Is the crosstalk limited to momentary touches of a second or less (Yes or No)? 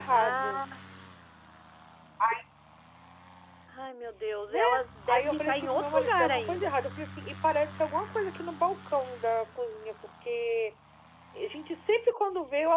No